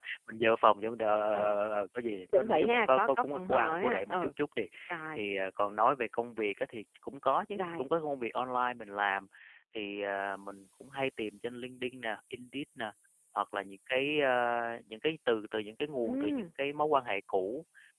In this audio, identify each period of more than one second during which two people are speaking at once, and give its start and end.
2.3-4.3

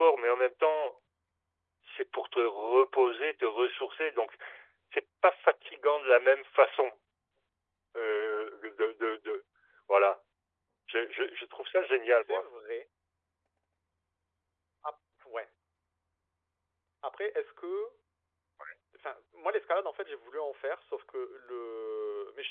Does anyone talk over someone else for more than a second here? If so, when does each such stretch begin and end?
none

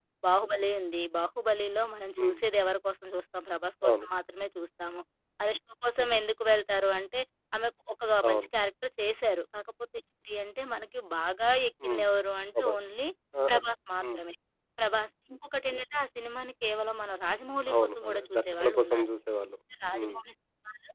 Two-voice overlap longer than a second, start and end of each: 17.7-19.1

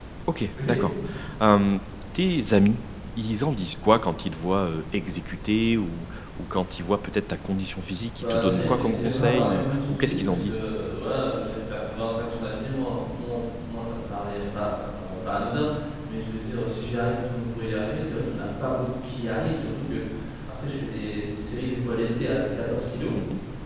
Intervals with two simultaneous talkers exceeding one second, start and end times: 8.2-10.6

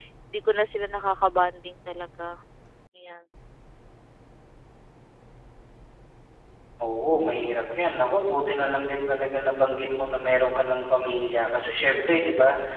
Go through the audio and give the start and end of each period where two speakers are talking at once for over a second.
none

